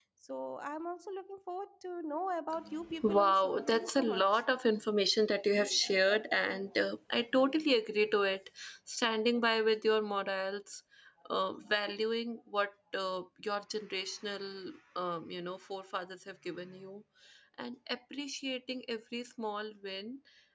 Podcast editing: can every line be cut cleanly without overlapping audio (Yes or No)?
No